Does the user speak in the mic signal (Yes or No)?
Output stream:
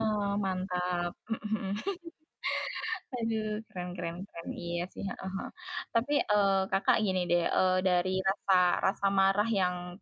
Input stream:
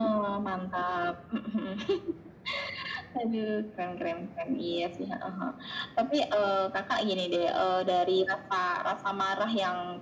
No